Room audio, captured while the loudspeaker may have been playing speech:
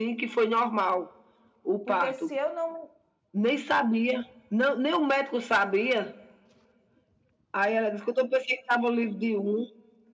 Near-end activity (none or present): present